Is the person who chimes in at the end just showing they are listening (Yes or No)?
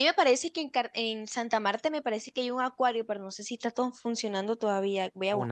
No